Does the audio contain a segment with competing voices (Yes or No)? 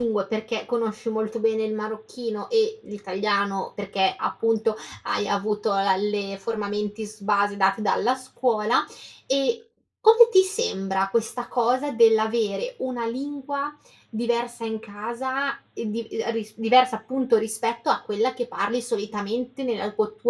No